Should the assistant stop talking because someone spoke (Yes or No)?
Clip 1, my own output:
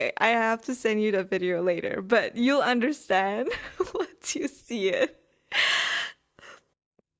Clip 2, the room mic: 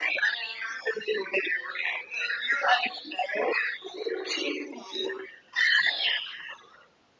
No